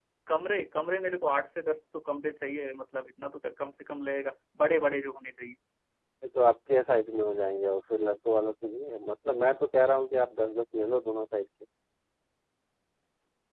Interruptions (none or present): none